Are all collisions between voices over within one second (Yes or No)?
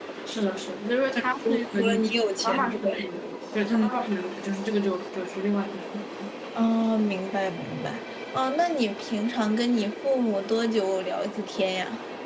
No